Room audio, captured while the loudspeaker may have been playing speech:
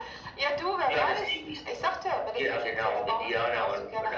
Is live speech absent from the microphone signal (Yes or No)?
Yes